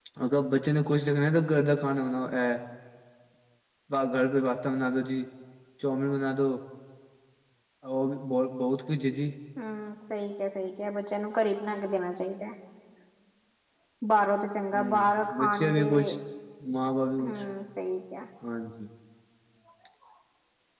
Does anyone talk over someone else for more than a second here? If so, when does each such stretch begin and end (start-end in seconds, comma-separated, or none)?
14.7-16.1